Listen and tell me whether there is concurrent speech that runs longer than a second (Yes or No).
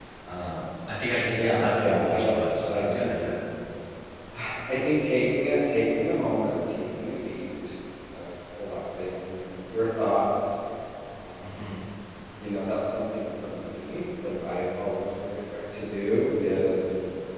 Yes